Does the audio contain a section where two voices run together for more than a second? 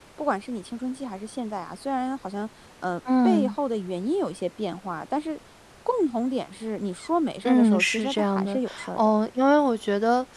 Yes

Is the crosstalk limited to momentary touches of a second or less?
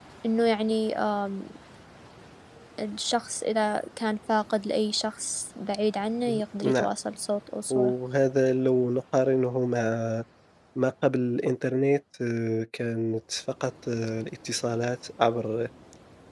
Yes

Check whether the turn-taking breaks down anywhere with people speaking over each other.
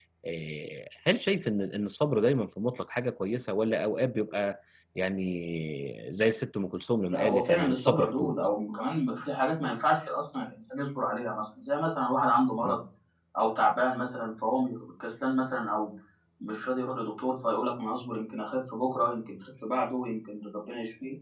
Yes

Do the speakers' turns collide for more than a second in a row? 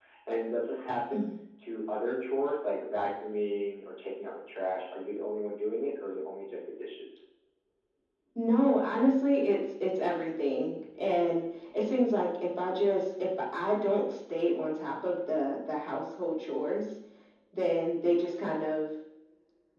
No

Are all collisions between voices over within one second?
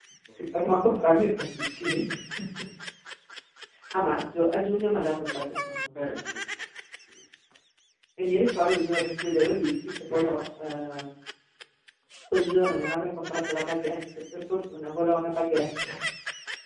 Yes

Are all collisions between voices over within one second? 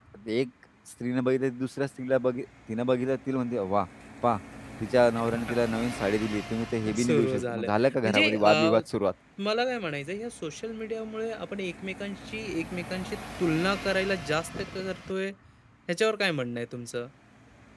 No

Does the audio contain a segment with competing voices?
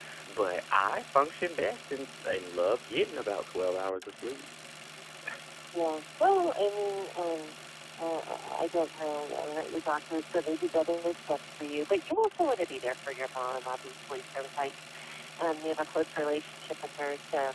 No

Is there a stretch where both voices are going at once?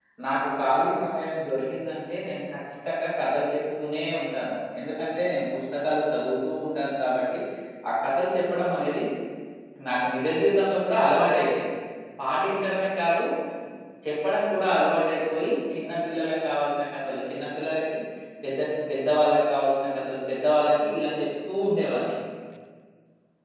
No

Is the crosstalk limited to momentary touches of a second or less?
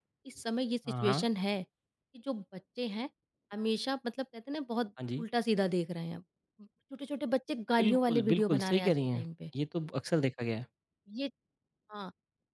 No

